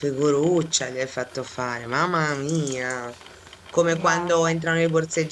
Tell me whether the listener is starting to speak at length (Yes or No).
No